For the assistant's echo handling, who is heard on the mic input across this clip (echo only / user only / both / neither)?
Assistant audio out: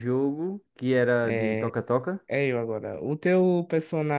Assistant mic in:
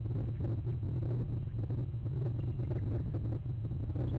neither